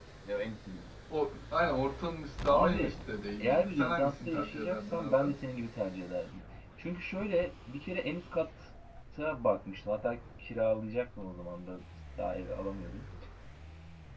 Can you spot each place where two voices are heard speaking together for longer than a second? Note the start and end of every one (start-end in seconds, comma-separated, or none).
3.4-5.2